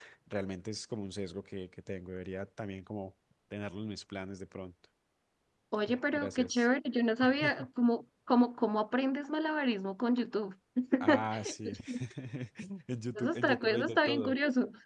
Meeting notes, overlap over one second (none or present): present